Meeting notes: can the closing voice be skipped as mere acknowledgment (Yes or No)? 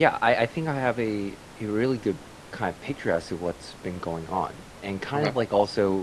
Yes